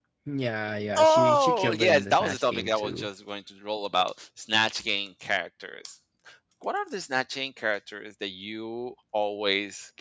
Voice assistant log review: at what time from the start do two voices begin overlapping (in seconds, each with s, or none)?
1.0 s